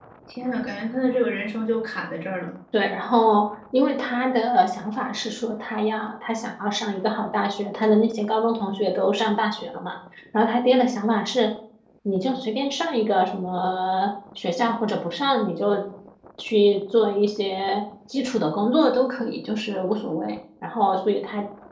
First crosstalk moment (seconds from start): none

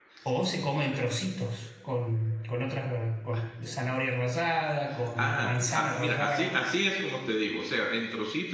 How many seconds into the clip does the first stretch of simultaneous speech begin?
5.2 s

